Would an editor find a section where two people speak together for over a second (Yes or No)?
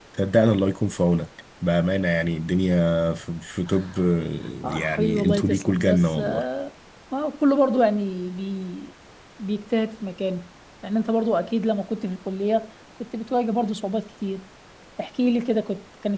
Yes